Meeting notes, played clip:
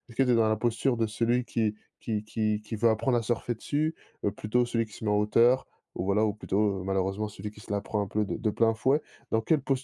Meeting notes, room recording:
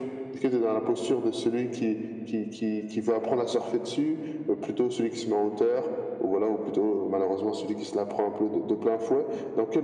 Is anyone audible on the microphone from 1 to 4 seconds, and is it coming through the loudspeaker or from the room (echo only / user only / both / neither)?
echo only